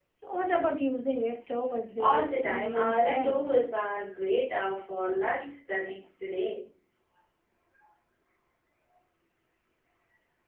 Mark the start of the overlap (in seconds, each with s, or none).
2.0 s